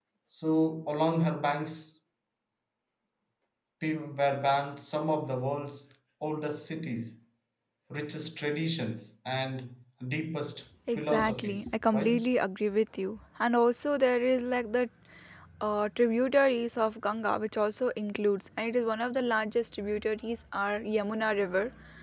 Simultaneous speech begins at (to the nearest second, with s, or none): 11 s